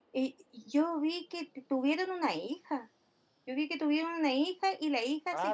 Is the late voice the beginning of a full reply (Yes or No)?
No